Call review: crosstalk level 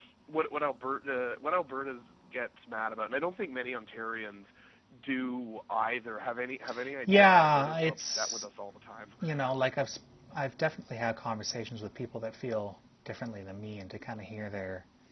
present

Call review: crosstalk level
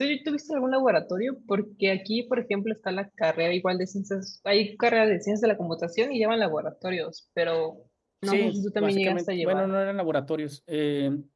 present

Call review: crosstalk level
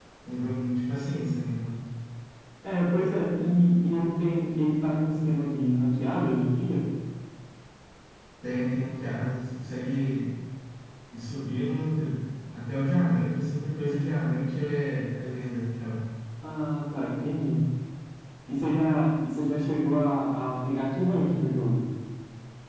none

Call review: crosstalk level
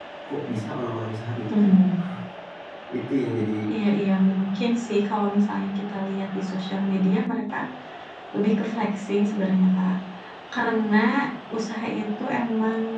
none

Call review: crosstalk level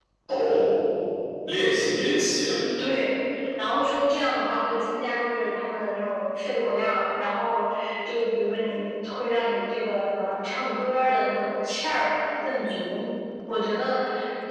none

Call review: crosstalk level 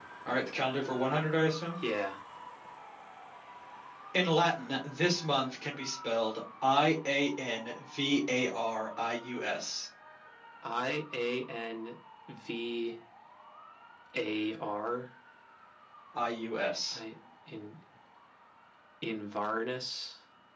none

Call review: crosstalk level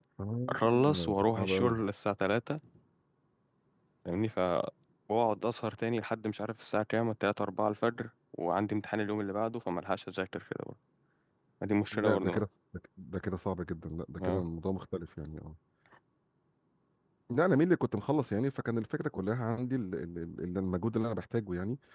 present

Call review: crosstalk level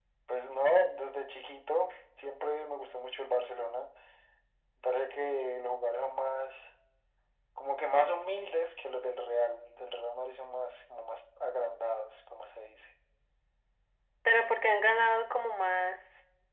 none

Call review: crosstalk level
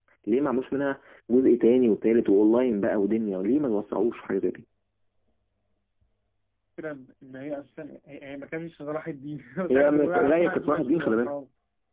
present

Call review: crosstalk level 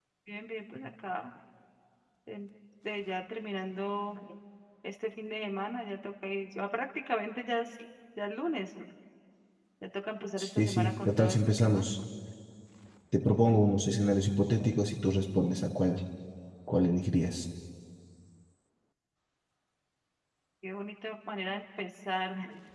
present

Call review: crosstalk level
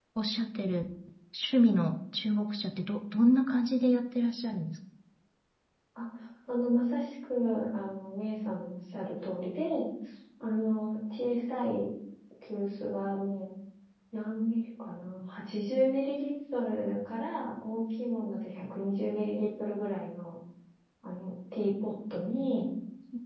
none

